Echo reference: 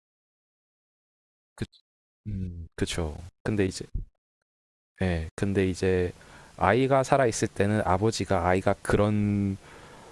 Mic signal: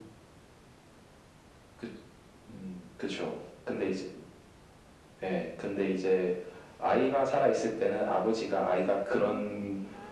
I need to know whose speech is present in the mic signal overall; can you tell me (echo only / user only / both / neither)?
both